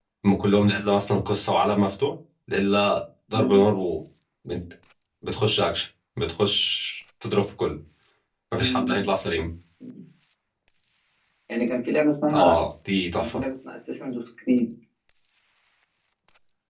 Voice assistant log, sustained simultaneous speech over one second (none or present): none